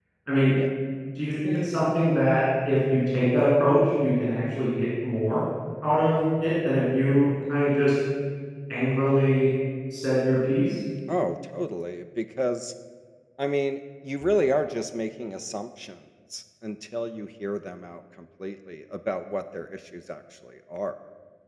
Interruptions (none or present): none